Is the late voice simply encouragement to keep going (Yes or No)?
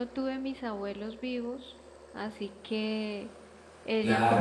No